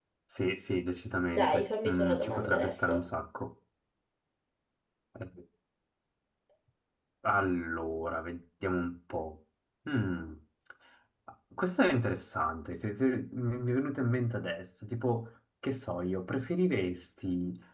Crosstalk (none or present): present